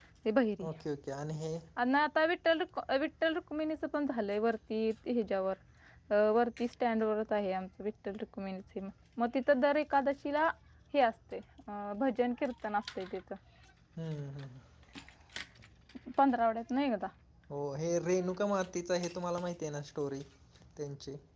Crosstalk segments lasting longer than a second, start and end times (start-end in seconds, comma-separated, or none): none